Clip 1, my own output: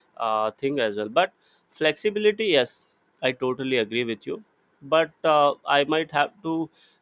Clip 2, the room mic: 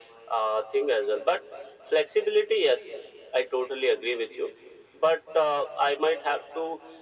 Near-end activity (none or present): none